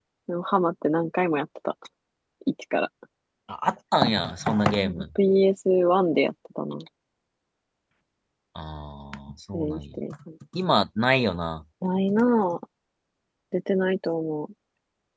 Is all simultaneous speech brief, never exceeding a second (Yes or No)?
Yes